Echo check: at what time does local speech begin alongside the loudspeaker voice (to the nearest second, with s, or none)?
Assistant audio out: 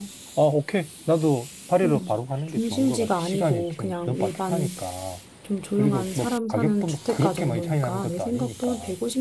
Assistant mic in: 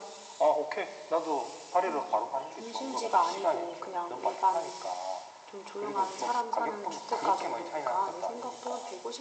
none